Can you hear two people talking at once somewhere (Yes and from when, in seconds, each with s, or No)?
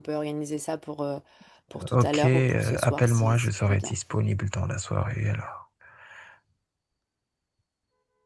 Yes, from 1.9 s